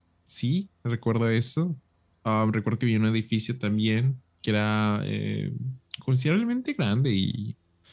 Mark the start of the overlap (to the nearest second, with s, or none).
none